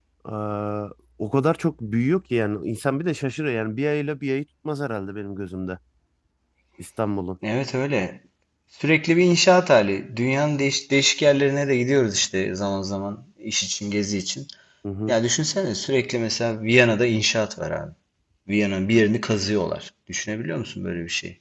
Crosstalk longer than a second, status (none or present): none